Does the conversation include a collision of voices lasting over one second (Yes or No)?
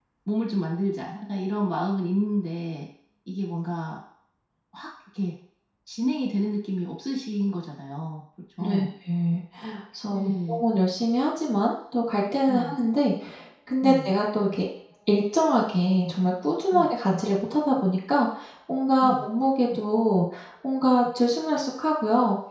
No